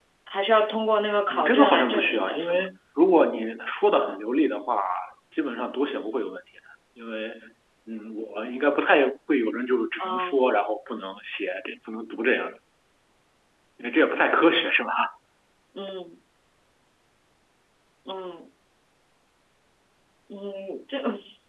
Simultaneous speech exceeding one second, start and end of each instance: 1.3-2.7

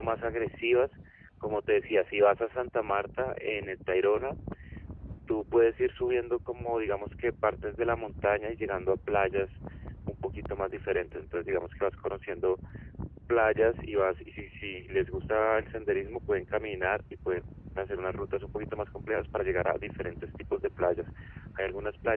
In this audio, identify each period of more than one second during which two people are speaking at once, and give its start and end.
none

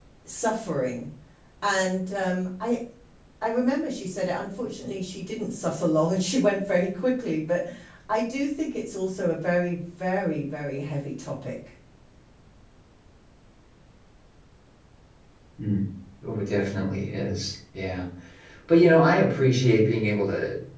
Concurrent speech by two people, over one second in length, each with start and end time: none

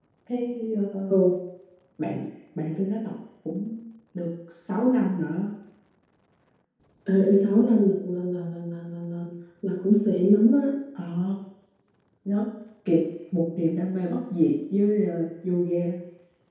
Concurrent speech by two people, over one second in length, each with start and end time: none

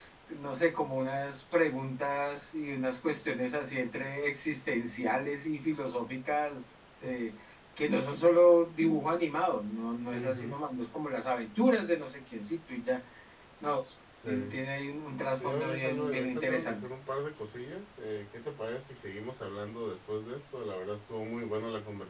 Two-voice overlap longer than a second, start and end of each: 15.4-16.8

